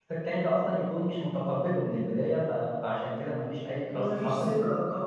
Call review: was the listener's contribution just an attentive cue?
No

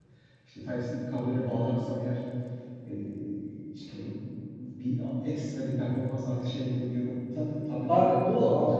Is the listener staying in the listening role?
No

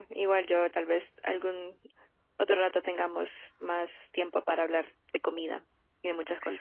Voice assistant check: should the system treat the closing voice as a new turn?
Yes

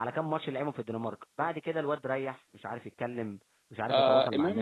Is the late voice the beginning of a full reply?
Yes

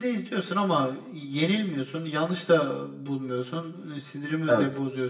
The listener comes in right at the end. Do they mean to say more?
No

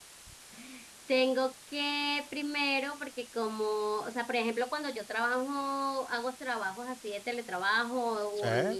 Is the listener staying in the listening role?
Yes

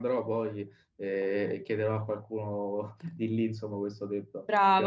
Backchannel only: No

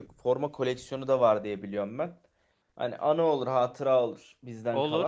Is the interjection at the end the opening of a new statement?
Yes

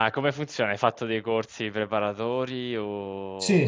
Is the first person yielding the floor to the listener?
Yes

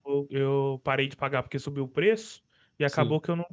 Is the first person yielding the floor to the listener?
No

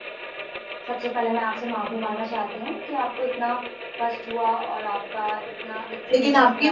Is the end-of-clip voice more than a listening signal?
Yes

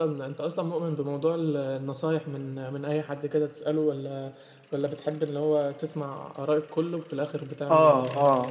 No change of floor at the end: No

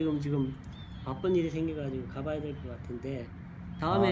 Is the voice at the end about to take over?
No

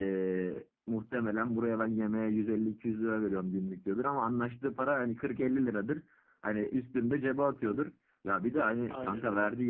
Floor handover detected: No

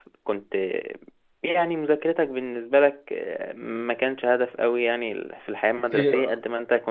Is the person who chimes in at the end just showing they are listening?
Yes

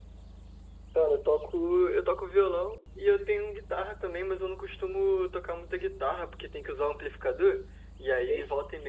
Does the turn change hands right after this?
No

